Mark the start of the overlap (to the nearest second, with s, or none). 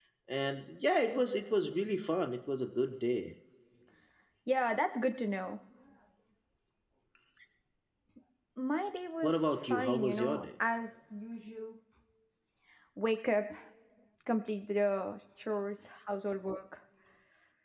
9 s